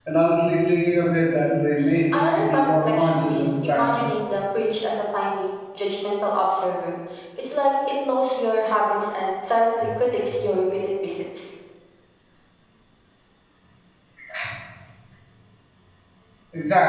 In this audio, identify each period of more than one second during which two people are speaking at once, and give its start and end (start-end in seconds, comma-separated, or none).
2.1-4.1